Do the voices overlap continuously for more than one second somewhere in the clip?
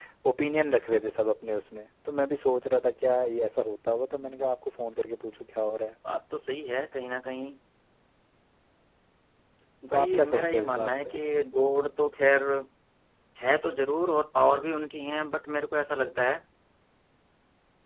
Yes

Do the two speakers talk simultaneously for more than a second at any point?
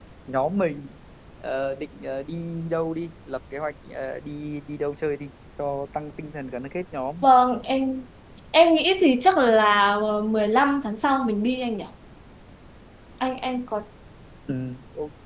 No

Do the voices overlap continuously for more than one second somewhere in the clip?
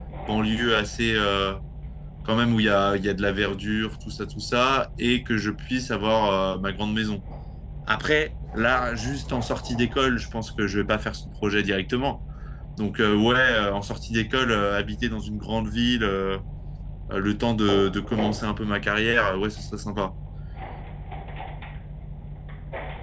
No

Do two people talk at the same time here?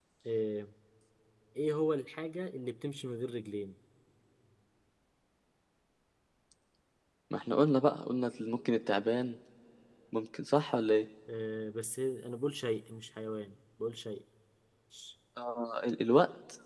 No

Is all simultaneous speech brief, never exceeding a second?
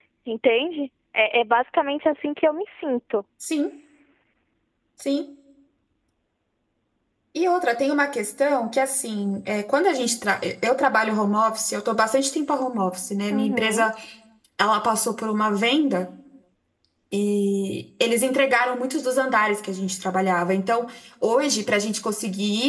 Yes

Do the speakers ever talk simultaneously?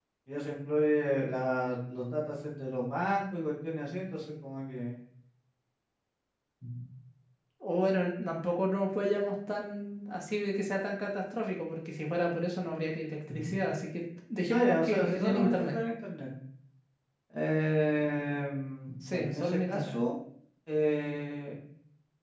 Yes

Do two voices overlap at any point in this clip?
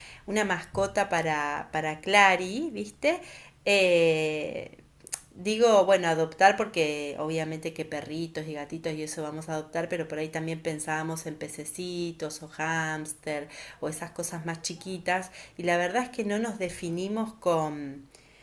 No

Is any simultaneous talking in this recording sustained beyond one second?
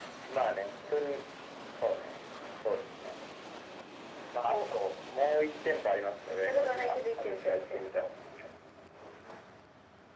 Yes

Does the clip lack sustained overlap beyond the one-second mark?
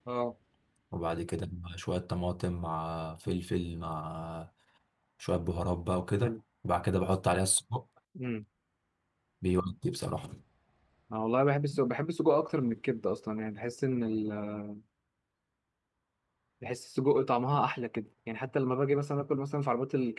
Yes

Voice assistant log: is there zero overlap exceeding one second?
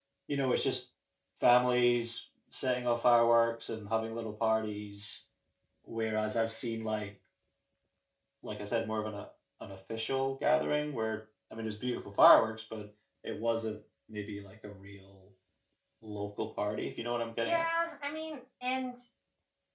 Yes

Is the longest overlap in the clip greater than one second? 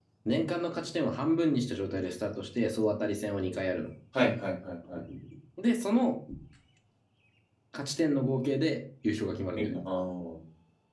No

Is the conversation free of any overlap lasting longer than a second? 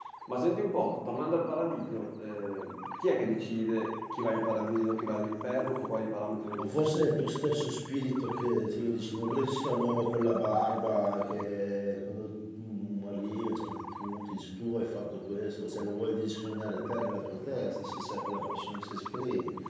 Yes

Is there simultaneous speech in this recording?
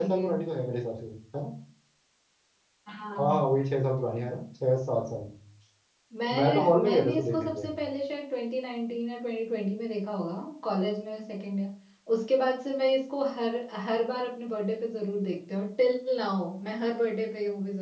Yes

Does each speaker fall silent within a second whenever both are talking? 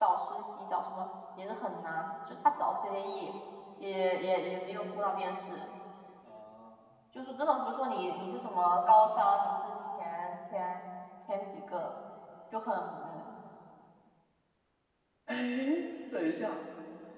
Yes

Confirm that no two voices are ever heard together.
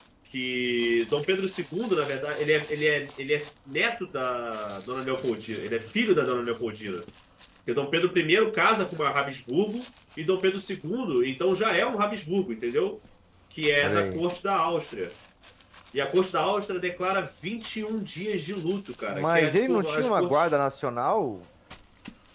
No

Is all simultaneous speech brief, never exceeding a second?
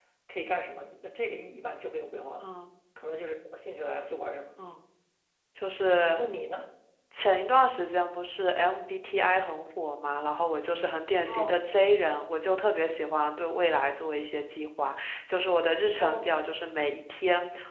Yes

